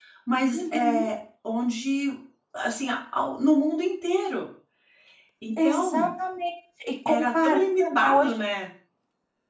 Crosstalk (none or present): present